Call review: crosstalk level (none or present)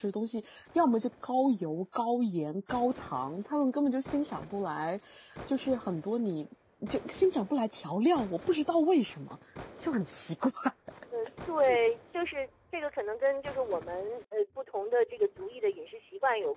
none